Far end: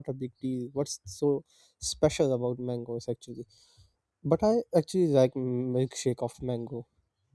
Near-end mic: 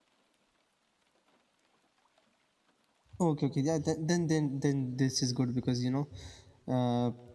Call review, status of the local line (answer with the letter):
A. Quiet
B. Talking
B